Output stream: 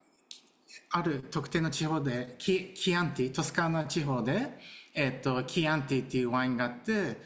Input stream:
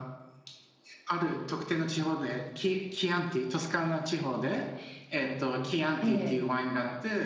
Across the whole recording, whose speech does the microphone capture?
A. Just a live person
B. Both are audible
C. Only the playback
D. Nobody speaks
B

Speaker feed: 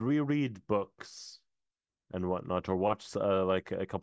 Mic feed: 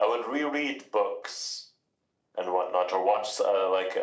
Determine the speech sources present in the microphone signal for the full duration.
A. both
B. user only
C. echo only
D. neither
C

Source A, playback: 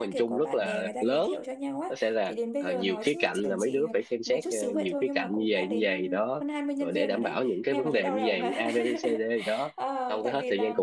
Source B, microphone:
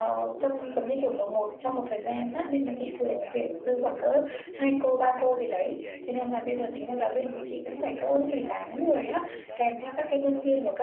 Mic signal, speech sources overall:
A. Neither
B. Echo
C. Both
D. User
C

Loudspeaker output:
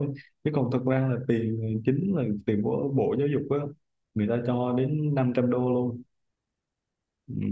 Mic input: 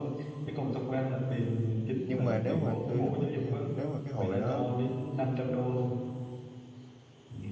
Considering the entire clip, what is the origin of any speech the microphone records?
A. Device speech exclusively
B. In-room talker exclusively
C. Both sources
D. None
C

